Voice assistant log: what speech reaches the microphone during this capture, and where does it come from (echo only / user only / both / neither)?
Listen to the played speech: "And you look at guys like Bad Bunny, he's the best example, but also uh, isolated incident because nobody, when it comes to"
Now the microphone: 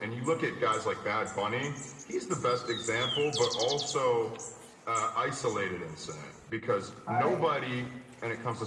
both